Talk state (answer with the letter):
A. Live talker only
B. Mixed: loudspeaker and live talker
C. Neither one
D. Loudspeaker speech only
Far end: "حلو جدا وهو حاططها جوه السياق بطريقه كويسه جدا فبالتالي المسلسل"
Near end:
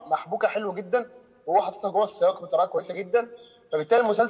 D